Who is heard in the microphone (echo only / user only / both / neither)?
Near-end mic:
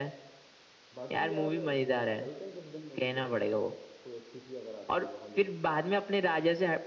both